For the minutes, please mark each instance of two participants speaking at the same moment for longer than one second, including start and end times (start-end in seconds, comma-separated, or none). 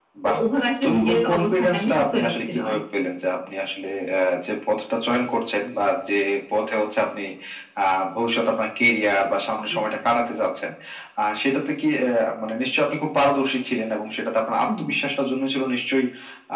0.8-2.8